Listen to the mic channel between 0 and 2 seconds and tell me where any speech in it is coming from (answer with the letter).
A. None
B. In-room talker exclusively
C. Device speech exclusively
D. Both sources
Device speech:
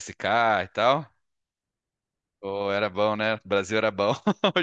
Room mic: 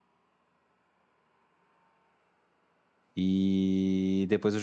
A